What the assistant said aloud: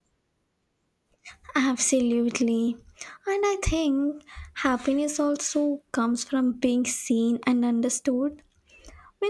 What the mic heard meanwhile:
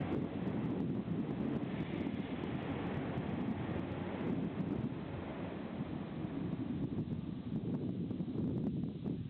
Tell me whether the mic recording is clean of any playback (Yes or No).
Yes